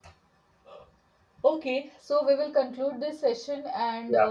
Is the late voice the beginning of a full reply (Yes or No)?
No